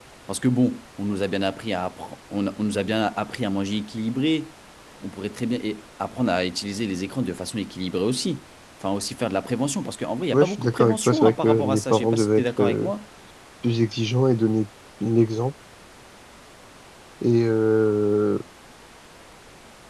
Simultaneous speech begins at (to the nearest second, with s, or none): 10 s